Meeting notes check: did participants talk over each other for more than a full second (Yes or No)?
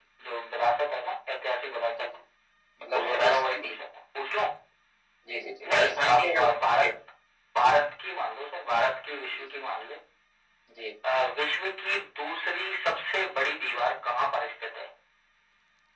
Yes